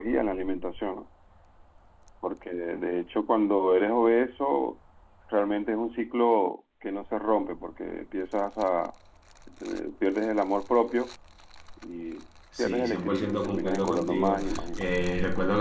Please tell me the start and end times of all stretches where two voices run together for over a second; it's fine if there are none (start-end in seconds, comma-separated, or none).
12.6-14.9